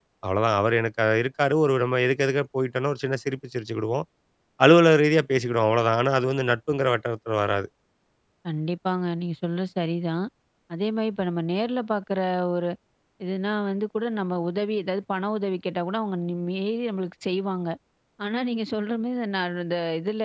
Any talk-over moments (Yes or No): No